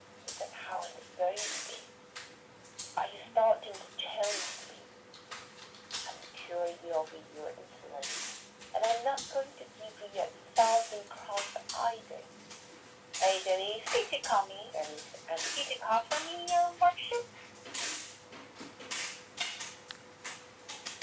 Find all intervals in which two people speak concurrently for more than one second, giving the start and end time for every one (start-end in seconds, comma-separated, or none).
none